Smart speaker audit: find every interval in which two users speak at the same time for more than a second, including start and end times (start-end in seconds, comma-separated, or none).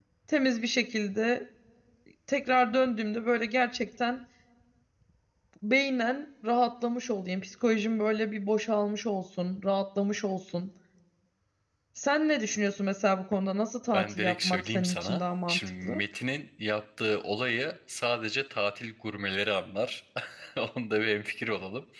13.9-16.0